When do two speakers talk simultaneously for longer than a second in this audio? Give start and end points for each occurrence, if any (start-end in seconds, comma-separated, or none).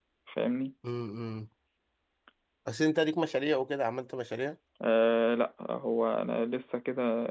none